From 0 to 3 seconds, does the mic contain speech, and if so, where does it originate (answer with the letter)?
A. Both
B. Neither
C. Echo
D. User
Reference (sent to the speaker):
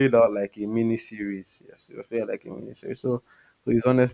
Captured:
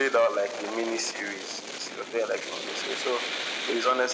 C